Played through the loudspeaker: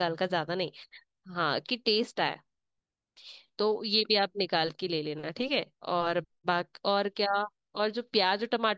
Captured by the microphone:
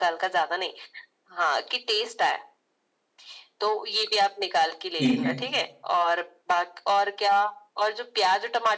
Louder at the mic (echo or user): user